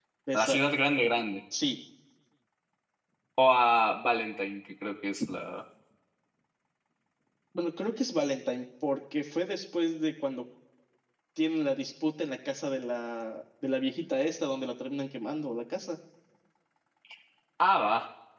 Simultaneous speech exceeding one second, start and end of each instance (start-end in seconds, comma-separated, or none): none